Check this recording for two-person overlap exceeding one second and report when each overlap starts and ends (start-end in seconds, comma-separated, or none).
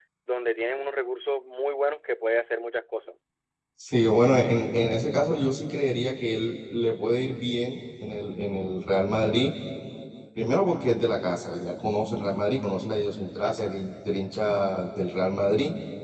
none